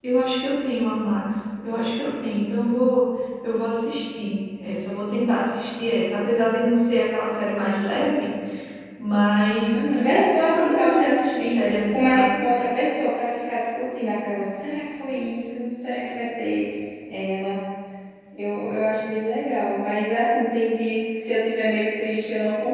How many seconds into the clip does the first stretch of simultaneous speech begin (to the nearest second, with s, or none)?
10 s